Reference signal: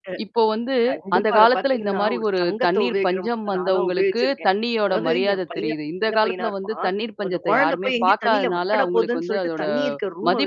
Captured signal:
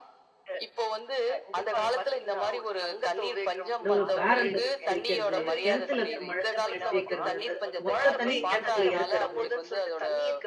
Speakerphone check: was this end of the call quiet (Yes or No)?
No